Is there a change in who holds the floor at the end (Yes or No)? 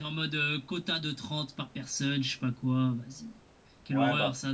Yes